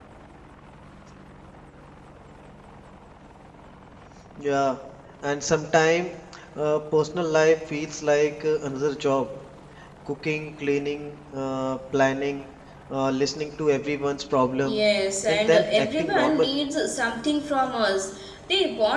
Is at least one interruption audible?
Yes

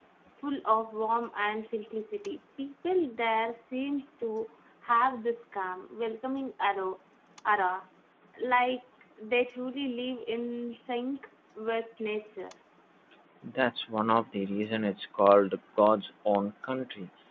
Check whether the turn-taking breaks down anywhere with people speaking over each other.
No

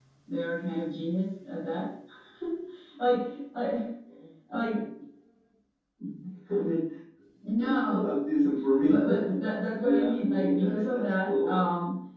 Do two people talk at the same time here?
Yes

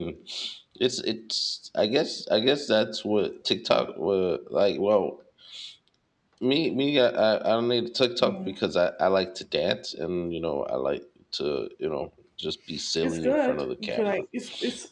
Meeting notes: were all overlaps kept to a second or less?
No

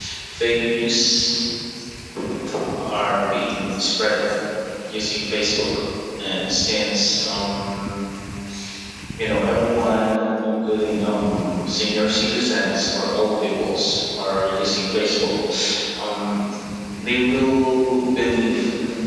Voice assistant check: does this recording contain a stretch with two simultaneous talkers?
No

